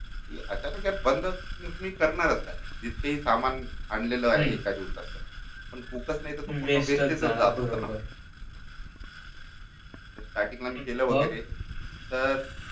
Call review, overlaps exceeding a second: present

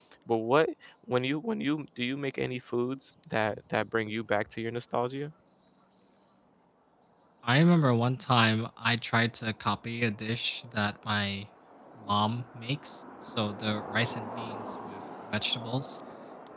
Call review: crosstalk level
none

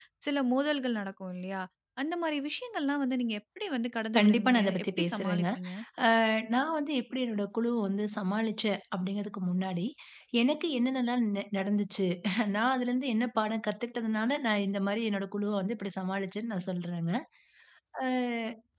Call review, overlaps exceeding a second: present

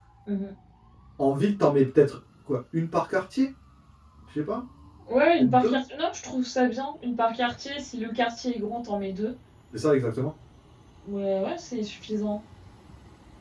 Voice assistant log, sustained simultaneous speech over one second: none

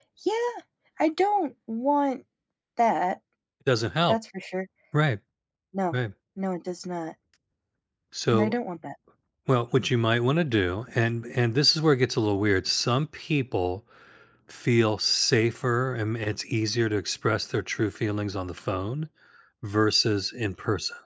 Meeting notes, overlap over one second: none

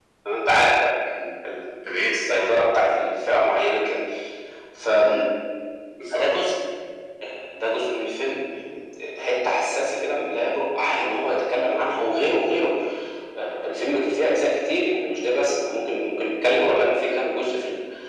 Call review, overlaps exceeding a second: none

